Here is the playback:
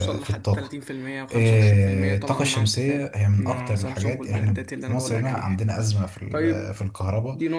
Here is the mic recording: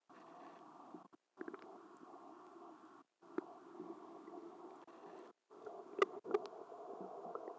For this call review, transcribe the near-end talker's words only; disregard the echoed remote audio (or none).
none